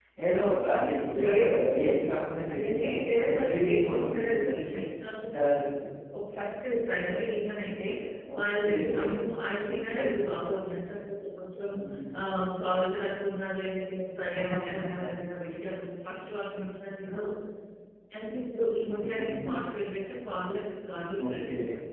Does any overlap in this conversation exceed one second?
Yes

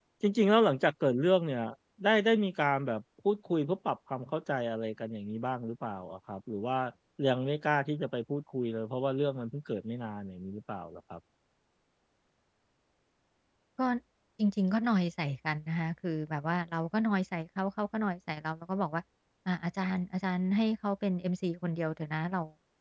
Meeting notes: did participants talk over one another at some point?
No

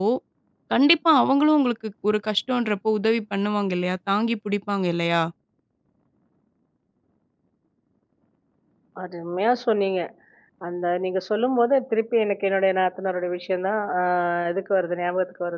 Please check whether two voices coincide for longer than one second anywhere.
No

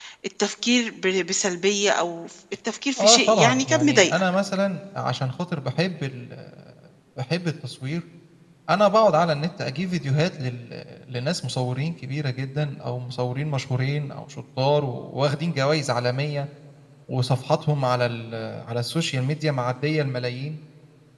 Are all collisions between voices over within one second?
No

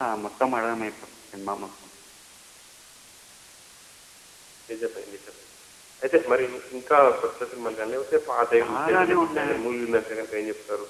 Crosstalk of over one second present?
Yes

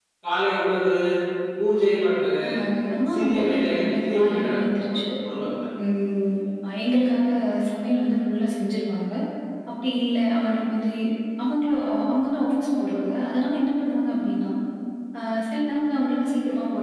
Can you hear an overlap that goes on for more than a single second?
Yes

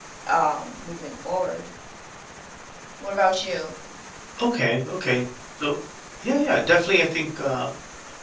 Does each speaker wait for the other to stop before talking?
Yes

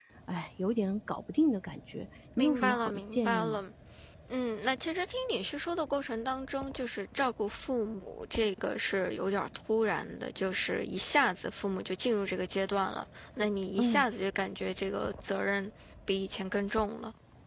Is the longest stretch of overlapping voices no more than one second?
No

